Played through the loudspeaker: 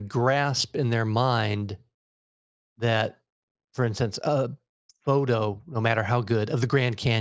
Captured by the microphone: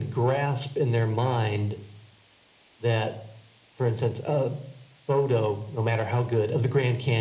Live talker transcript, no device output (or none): none